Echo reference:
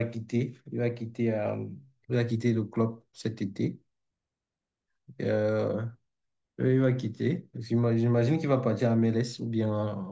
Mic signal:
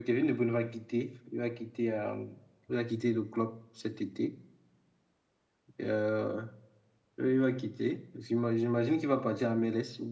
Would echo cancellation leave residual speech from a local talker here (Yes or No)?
No